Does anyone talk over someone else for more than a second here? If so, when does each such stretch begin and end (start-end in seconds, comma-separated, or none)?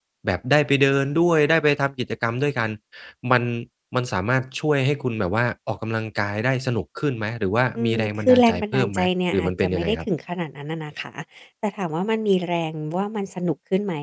7.8-10.1